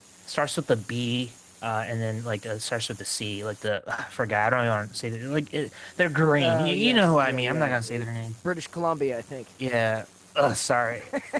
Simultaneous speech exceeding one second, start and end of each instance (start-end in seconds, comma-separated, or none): 6.4-8.0